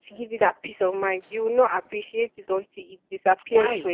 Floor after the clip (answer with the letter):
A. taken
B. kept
A